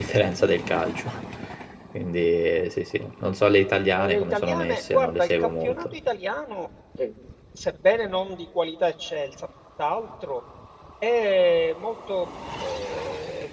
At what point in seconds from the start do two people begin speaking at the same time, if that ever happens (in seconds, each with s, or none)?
3.9 s